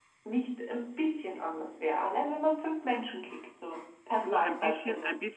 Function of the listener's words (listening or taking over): taking over